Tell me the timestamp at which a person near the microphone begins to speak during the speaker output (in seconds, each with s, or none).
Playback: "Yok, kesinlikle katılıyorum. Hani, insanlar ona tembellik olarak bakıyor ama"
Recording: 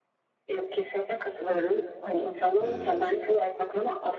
2.6 s